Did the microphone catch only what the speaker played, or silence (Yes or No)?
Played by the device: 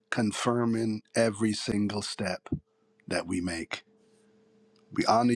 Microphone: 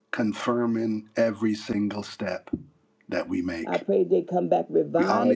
No